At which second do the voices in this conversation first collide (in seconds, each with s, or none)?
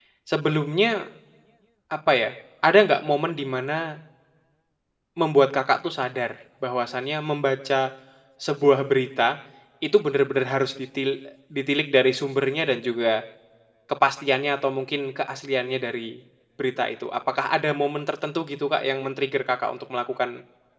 none